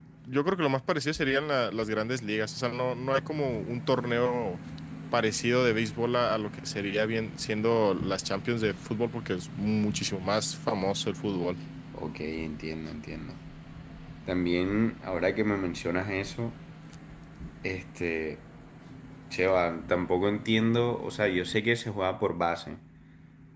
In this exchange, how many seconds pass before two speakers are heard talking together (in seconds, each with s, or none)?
none